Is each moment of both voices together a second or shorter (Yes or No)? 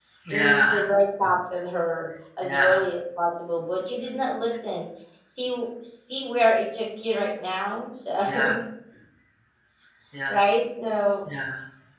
Yes